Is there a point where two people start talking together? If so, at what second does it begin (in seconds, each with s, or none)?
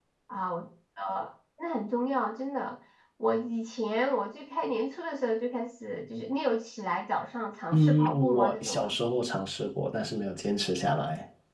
7.7 s